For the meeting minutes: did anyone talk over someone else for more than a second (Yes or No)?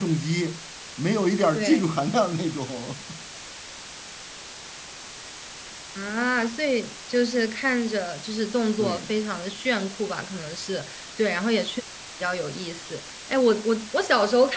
No